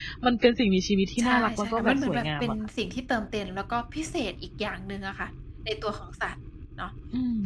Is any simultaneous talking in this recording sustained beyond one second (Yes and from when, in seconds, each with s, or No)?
Yes, from 1.2 s